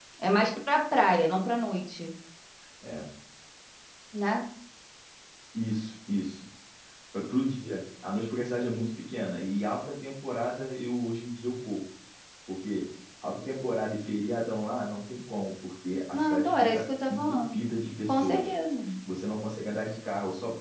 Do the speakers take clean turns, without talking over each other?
No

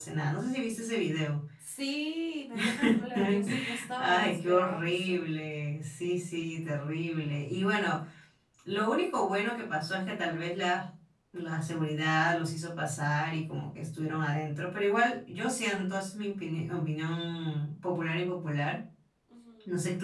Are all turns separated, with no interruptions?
No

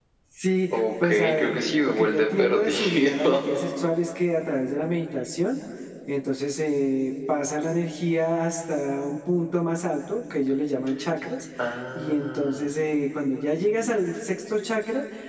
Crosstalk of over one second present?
Yes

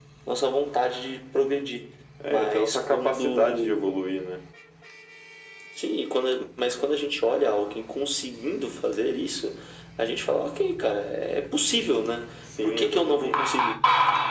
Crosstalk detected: Yes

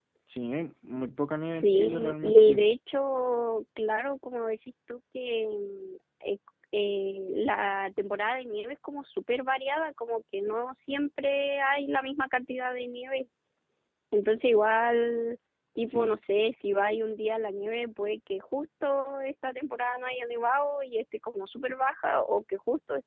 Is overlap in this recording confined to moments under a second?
No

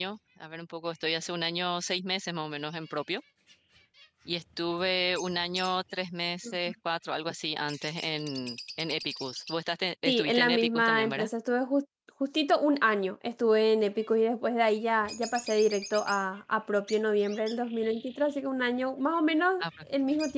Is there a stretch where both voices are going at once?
Yes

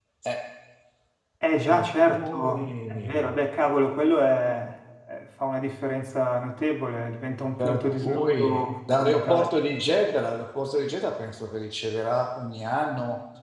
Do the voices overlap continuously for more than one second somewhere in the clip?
Yes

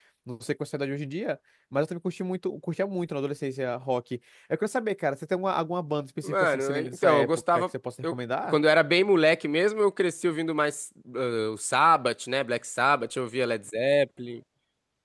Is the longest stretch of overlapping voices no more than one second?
No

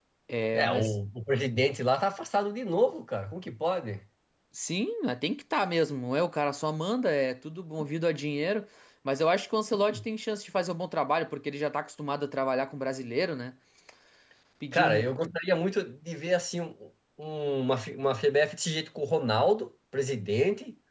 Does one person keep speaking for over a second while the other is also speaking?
No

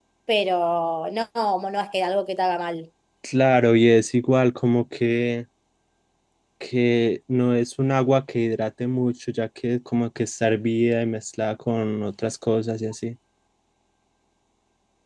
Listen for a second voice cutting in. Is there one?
No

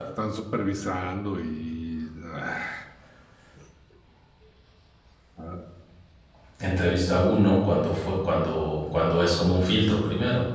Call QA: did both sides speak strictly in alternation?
Yes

